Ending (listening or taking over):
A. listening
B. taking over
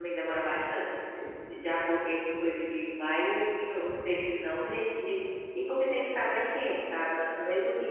A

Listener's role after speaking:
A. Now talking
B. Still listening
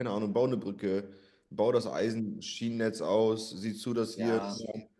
B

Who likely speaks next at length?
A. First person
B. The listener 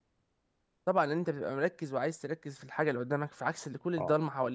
B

